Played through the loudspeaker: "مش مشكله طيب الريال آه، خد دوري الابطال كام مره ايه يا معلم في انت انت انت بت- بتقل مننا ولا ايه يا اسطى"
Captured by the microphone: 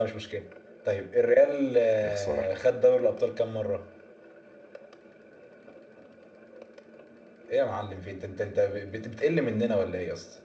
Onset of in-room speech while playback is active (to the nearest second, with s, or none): 2 s